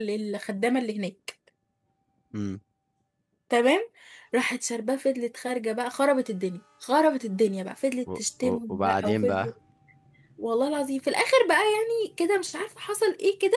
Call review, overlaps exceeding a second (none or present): present